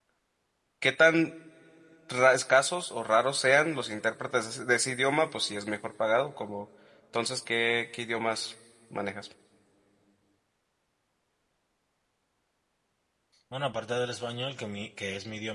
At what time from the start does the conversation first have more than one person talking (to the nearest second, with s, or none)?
none